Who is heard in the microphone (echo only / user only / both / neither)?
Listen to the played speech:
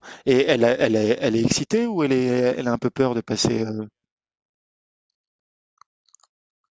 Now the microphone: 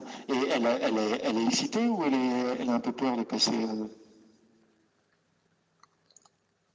echo only